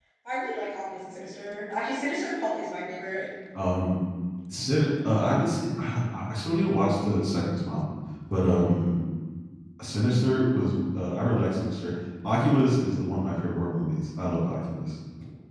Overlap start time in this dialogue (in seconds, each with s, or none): none